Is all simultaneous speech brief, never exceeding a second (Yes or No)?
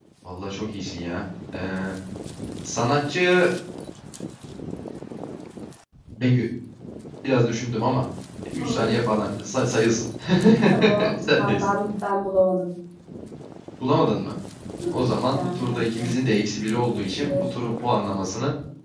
No